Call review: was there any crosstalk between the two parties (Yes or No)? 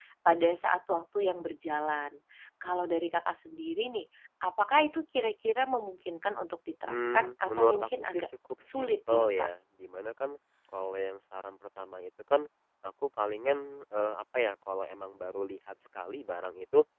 Yes